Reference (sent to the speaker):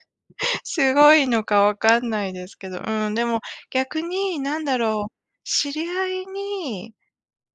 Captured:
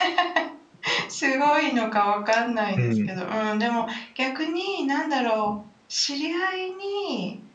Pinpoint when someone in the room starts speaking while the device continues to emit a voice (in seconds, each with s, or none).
2.8 s